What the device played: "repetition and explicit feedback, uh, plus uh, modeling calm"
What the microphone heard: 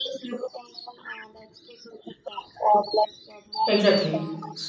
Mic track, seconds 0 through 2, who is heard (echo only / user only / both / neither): echo only